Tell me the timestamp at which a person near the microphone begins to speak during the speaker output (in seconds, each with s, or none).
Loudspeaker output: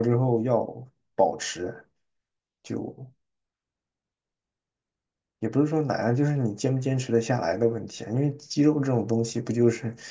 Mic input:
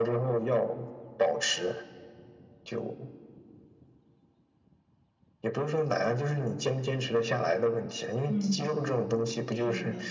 8.3 s